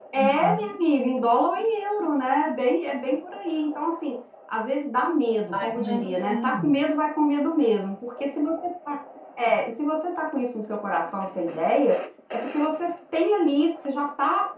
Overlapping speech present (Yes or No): Yes